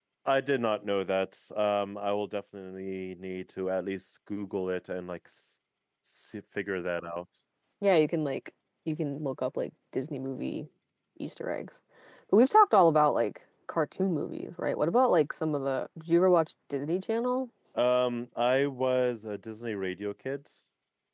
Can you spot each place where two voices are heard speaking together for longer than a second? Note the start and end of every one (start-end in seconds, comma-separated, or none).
none